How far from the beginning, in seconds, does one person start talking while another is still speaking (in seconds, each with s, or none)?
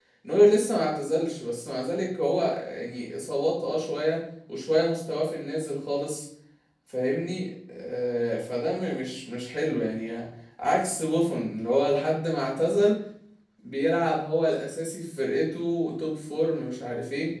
none